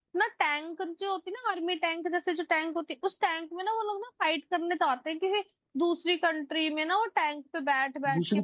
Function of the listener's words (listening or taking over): taking over